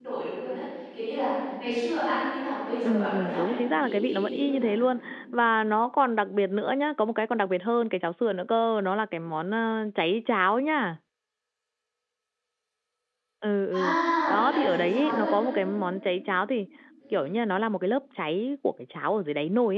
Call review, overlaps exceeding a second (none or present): present